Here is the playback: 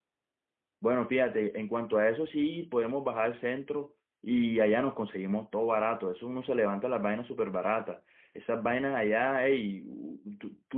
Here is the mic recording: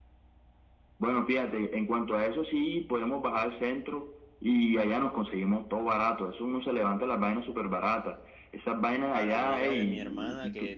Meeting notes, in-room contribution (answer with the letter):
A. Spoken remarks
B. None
A